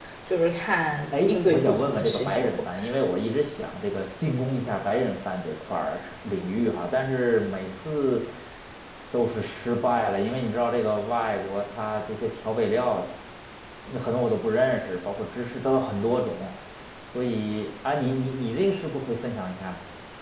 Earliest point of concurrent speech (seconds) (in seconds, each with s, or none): 1.1 s